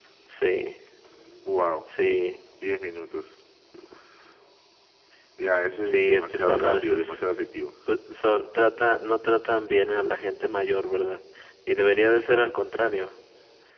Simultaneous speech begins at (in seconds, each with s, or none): 5.9 s